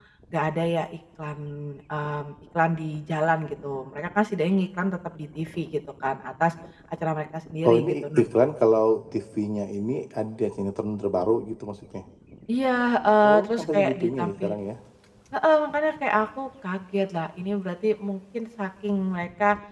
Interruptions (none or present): present